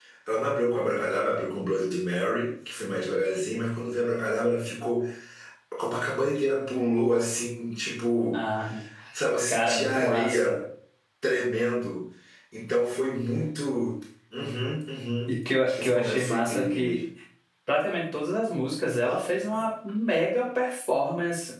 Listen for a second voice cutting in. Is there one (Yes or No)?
Yes